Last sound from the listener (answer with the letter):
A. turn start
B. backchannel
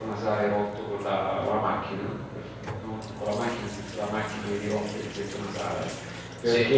B